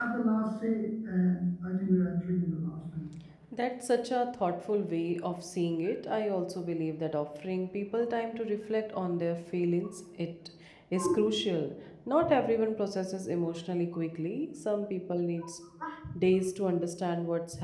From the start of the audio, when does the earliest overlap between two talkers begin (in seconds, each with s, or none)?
none